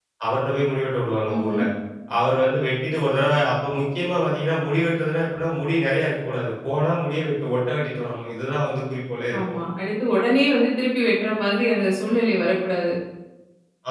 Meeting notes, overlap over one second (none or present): none